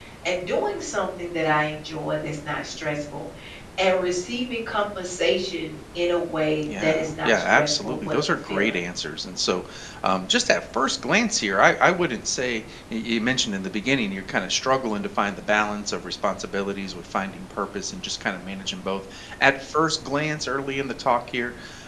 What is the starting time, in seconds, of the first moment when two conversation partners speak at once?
7 s

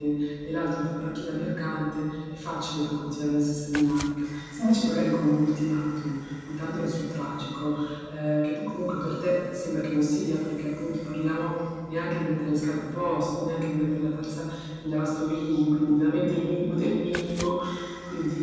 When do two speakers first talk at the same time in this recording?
none

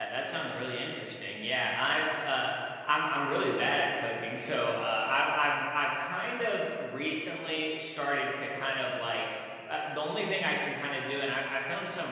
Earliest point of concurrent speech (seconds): none

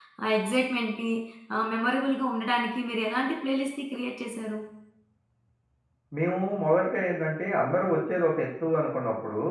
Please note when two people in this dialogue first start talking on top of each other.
none

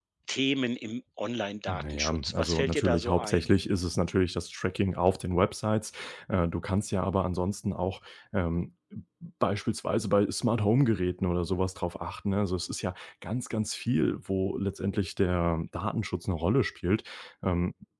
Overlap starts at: 2 s

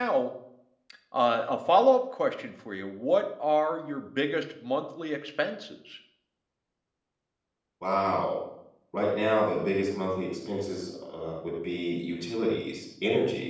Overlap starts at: none

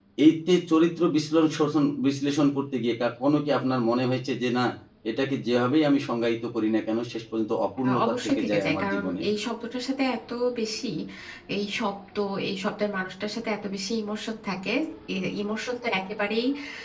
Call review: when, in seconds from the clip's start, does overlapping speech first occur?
8 s

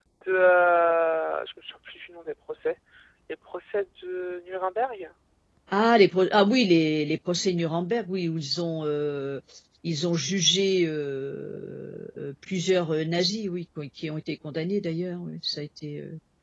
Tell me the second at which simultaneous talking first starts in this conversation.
none

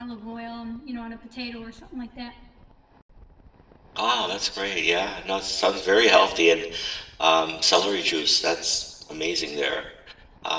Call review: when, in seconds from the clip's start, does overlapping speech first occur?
none

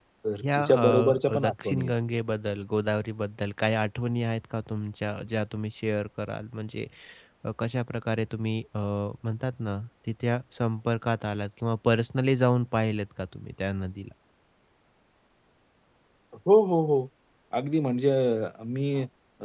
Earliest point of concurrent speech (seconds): 1 s

